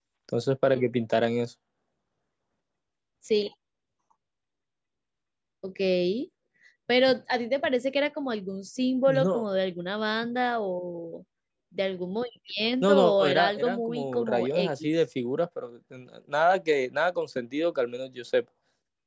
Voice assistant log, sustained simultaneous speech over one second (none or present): present